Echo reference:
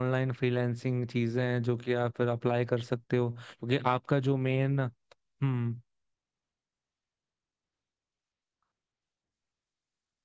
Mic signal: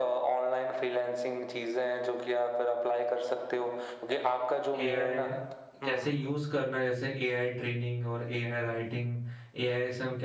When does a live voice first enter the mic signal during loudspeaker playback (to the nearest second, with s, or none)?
5 s